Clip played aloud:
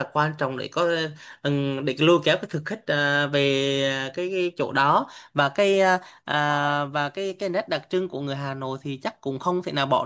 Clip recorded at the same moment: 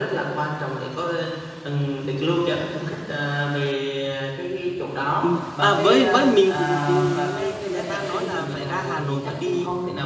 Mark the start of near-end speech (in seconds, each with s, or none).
5.2 s